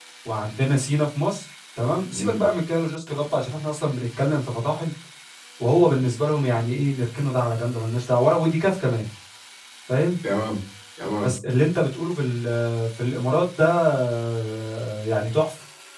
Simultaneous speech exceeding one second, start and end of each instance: none

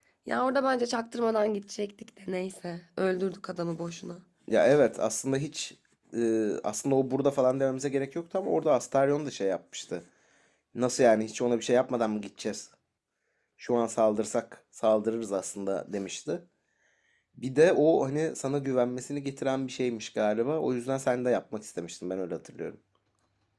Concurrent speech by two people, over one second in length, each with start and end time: none

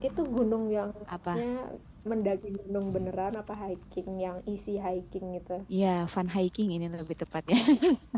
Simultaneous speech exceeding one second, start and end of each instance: none

